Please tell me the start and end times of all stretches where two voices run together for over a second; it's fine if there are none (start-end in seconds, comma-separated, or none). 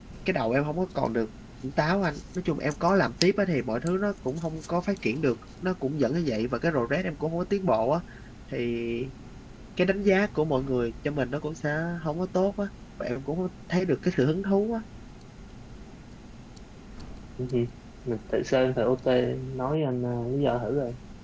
none